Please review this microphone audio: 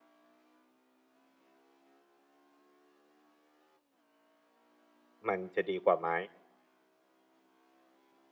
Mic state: user only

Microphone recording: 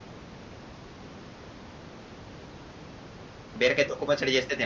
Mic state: user only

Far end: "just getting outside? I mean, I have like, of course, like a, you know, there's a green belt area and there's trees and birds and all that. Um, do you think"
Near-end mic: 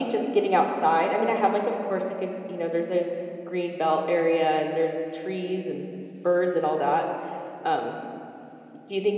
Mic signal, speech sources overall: echo only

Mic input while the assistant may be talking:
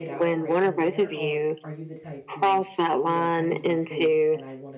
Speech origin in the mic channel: both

